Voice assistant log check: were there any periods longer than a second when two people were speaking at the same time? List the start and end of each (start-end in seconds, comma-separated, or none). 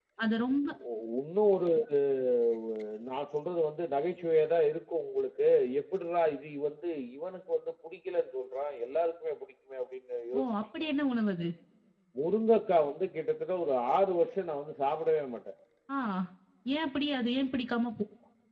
none